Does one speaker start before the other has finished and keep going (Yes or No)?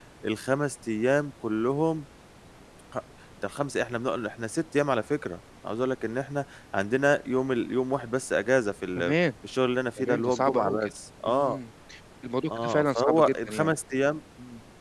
Yes